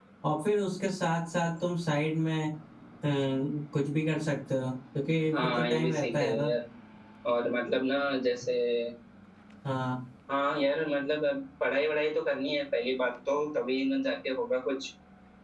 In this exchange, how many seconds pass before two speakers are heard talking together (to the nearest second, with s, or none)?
5 s